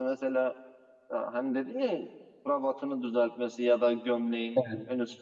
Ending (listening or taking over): listening